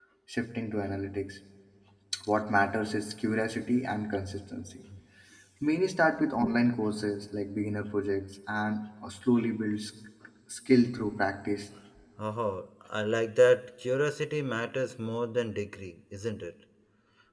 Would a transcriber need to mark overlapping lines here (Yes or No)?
No